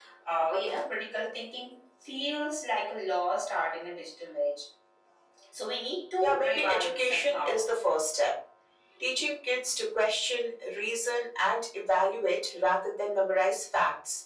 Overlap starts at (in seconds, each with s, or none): 6.2 s